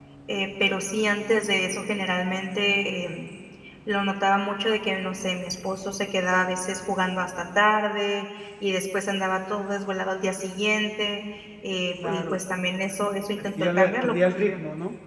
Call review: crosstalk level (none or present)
present